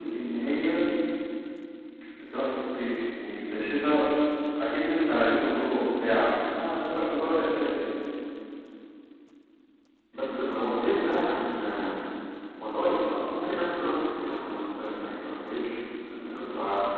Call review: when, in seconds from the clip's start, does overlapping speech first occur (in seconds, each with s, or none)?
none